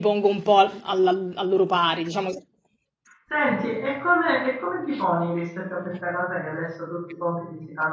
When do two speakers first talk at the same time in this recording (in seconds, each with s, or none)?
none